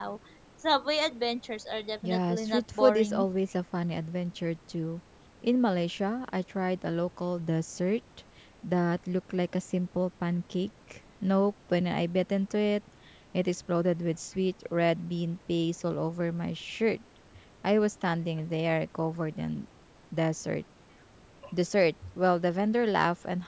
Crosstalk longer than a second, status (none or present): present